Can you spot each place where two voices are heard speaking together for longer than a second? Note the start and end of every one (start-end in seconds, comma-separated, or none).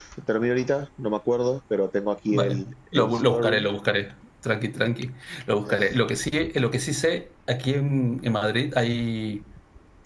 2.3-3.7